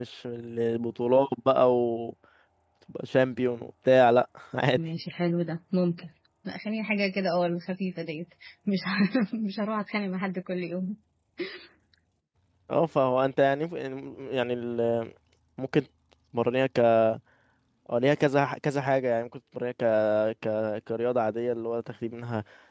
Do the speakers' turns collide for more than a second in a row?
No

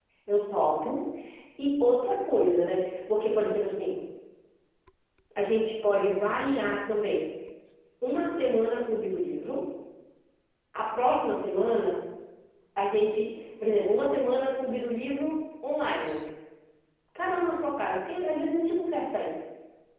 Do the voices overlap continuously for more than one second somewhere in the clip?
No

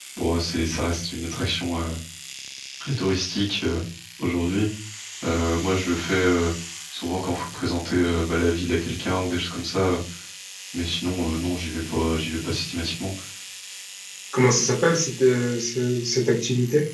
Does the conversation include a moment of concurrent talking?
No

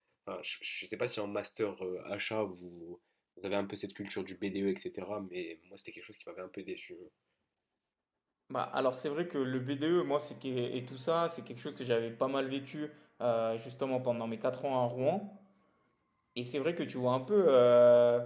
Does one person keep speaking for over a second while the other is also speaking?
No

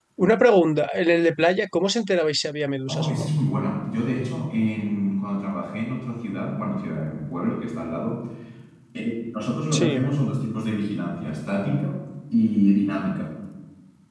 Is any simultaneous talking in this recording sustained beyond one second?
No

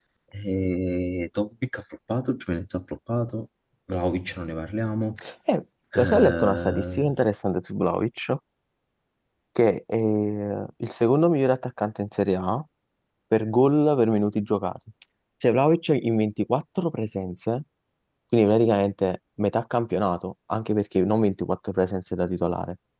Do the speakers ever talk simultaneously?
Yes, from 6.0 s

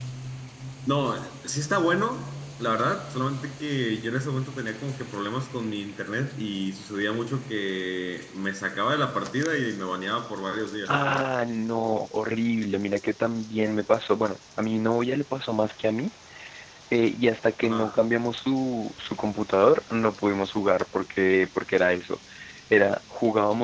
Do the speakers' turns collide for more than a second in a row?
No

